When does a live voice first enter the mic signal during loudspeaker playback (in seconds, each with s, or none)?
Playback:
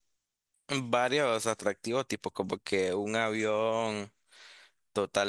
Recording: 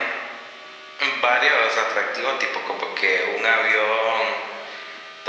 none